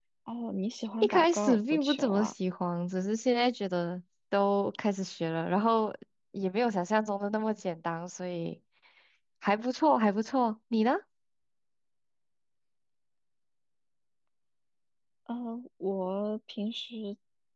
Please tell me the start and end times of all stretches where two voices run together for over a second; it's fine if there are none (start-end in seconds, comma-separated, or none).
1.0-2.3